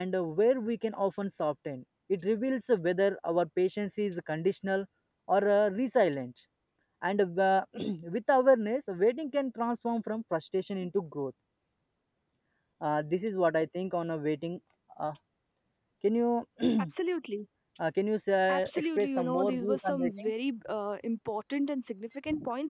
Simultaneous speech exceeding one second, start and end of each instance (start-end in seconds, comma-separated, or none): 18.5-20.3